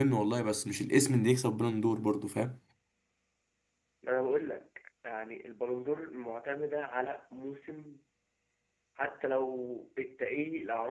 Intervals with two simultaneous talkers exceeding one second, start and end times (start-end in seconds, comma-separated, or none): none